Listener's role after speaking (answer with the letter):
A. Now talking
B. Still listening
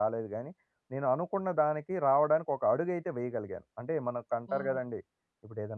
B